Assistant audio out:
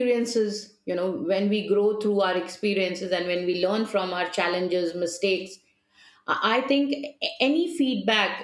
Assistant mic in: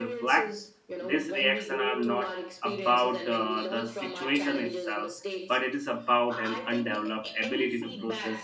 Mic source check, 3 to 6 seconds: both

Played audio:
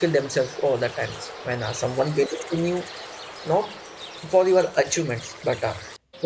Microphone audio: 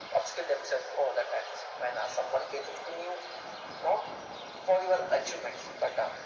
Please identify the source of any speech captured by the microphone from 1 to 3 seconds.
echo only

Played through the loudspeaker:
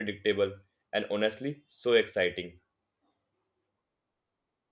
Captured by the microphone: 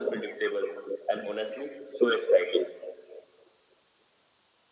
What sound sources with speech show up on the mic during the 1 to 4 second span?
echo only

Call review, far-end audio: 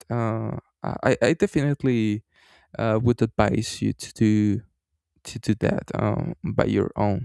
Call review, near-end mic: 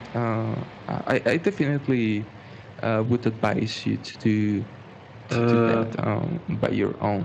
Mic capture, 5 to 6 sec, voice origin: both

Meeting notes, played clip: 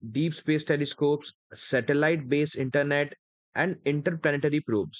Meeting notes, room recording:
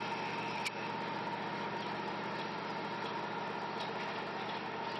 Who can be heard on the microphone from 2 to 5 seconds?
neither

